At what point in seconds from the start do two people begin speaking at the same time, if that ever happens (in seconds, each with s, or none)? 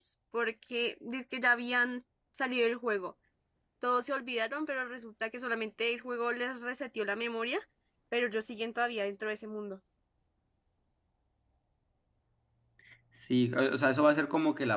none